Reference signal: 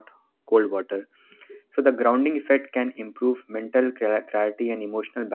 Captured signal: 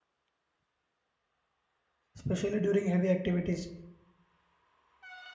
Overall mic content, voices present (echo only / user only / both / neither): user only